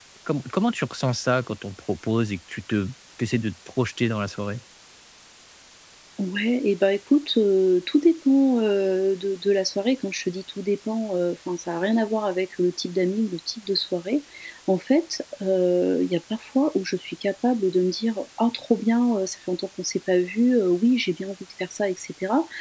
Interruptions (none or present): none